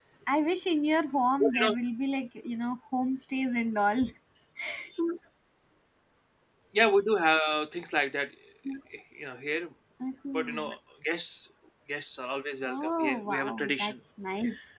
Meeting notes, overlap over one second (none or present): present